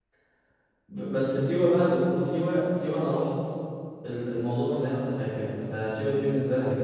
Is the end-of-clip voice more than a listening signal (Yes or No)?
No